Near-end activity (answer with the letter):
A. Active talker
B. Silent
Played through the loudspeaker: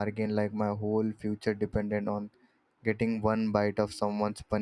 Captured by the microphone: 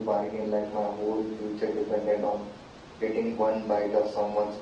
B